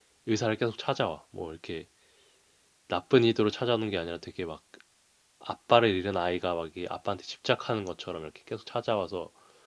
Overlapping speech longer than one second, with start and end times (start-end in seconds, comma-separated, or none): none